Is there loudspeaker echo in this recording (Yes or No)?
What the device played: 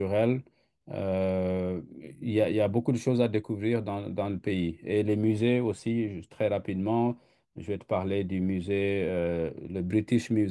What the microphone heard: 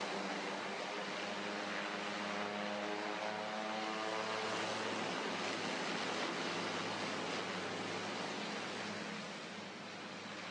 No